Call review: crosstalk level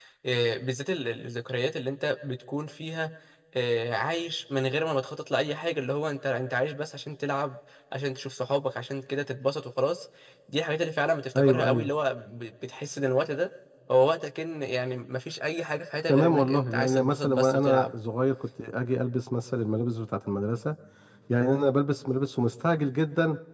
present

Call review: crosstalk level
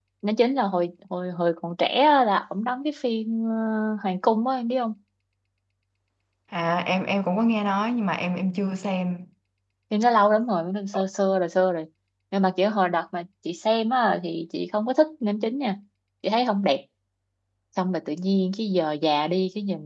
none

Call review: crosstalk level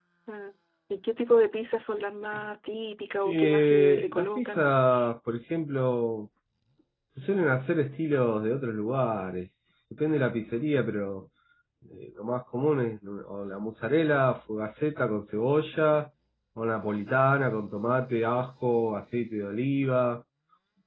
present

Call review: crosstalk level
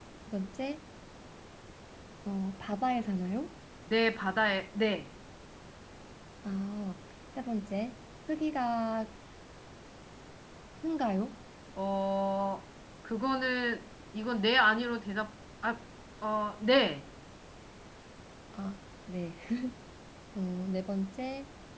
none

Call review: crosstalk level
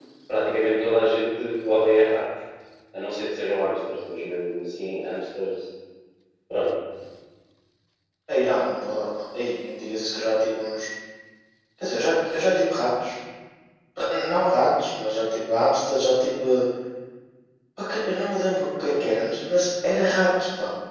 none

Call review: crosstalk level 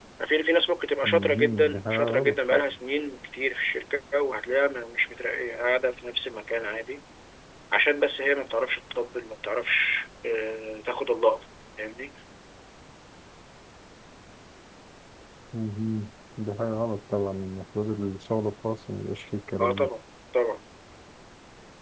present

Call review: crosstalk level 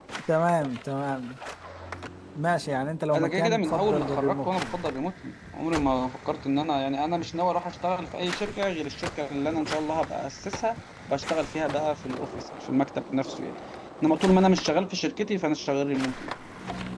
present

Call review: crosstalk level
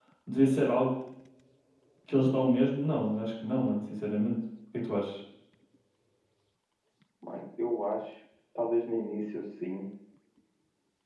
none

